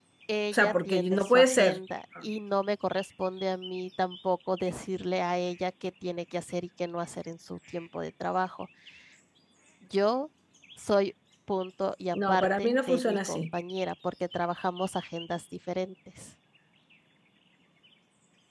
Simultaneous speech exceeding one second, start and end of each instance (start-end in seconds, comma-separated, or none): 0.5-1.8, 12.1-13.4